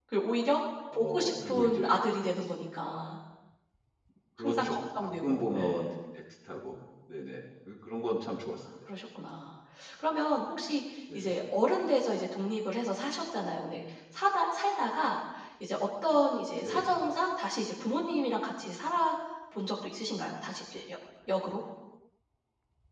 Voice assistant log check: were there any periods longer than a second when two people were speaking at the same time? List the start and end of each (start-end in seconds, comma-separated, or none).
0.9-2.3, 4.4-5.9